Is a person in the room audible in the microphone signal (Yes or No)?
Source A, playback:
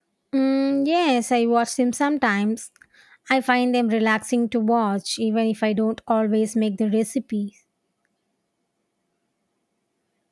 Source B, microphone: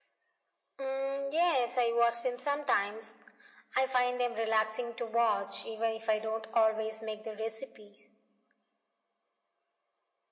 No